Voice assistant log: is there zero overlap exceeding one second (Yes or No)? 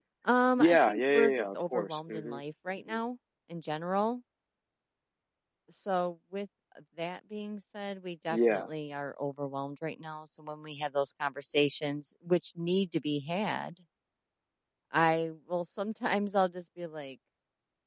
No